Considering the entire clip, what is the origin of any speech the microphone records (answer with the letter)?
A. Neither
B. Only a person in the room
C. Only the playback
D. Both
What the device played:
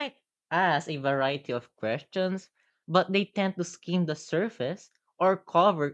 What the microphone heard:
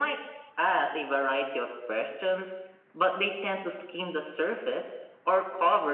C